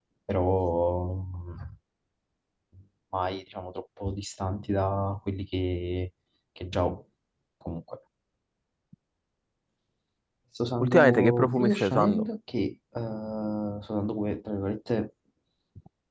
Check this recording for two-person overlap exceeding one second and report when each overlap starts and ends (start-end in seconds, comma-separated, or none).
10.8-12.3